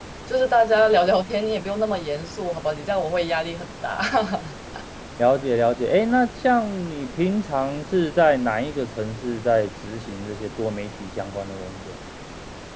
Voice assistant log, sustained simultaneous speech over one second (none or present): none